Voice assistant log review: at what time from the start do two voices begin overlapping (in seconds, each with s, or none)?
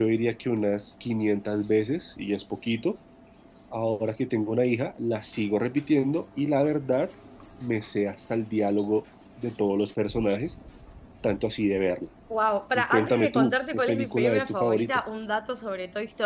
12.8 s